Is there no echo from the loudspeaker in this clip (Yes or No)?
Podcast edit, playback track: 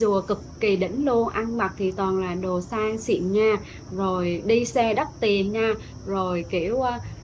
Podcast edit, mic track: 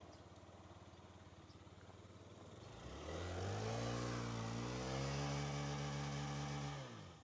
Yes